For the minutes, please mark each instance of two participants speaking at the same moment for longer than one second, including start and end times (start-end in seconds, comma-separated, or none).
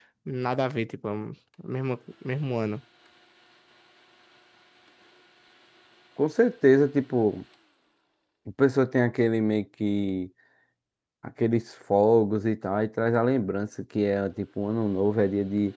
none